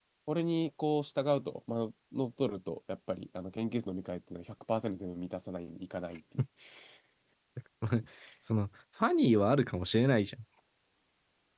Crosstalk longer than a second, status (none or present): none